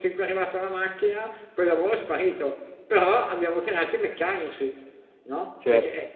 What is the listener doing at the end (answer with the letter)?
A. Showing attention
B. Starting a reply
B